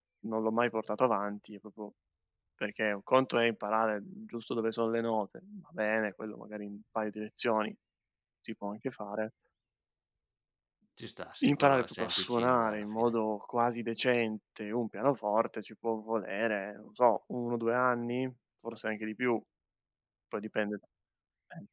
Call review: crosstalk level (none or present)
present